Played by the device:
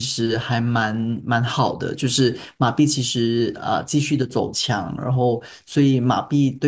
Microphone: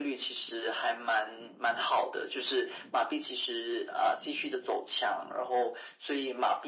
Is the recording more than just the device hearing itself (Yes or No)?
No